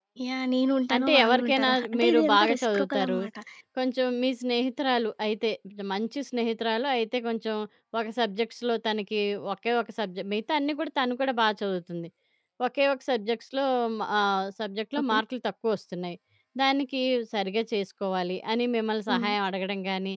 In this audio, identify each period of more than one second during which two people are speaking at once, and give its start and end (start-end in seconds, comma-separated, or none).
1.0-3.2